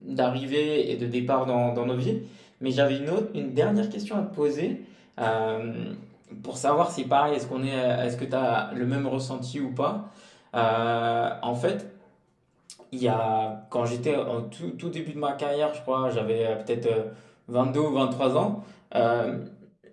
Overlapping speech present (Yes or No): No